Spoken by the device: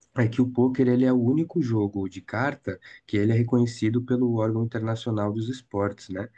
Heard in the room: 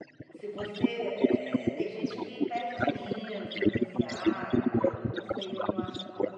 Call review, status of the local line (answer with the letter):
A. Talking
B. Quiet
A